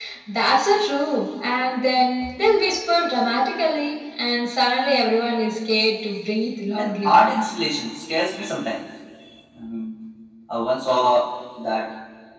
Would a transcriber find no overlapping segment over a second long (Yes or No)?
Yes